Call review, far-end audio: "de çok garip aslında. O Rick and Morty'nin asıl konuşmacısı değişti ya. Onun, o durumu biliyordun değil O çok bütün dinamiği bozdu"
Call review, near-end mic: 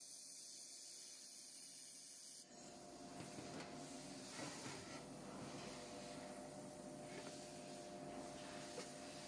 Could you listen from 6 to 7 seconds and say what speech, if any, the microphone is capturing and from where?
neither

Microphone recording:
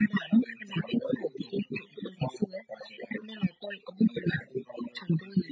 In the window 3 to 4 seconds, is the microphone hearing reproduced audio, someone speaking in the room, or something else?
echo only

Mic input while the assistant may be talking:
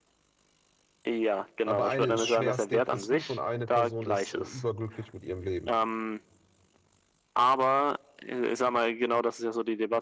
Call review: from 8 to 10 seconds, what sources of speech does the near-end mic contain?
echo only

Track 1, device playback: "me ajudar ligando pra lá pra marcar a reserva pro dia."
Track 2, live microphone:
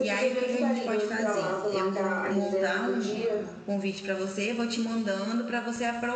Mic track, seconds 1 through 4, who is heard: both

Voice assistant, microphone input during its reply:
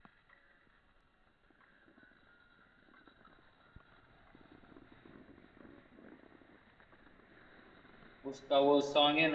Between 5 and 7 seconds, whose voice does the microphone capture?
neither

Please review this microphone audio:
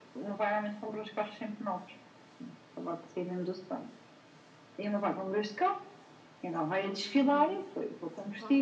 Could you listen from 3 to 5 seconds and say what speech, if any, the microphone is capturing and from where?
echo only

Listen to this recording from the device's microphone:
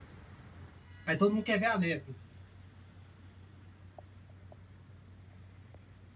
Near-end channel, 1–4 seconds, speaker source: user only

